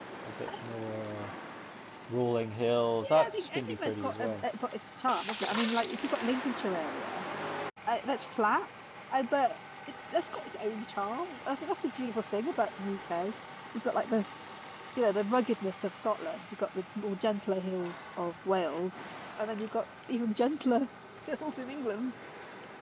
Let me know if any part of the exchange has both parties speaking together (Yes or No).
Yes